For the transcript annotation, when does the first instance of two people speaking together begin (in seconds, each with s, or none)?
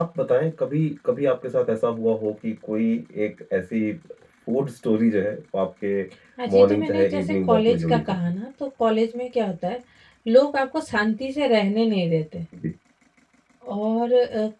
6.5 s